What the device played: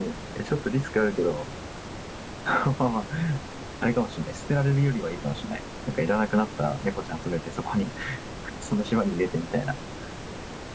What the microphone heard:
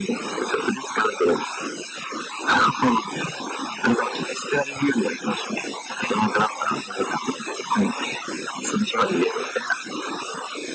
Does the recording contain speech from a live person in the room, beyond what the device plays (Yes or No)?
No